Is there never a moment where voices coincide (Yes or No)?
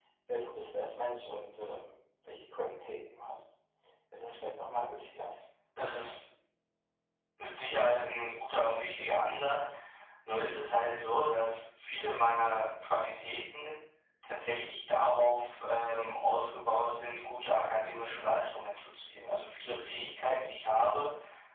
Yes